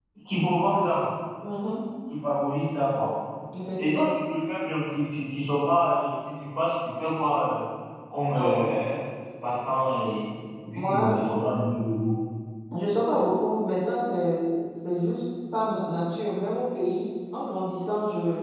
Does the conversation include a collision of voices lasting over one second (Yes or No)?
No